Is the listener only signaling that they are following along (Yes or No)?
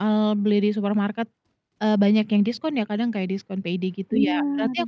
Yes